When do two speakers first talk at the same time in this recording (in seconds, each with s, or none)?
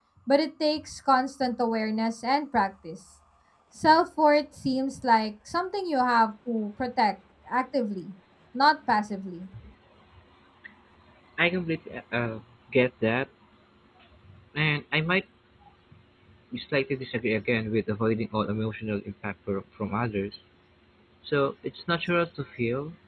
none